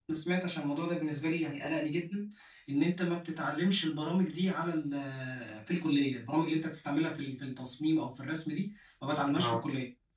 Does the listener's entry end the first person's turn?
No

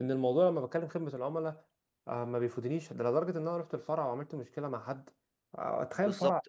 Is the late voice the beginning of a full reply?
Yes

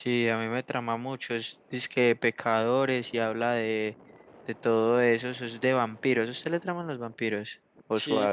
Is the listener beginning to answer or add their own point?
Yes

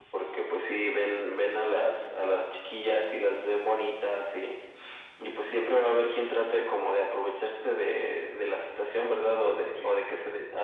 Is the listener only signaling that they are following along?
Yes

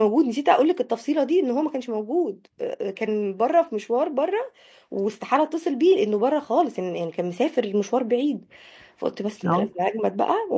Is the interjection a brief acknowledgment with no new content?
Yes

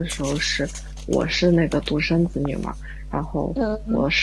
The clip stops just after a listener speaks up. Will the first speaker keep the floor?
Yes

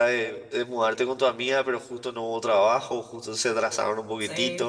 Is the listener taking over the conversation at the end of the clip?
Yes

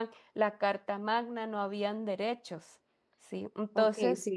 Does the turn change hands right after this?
Yes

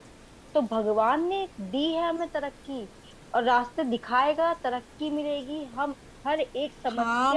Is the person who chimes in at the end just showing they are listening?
No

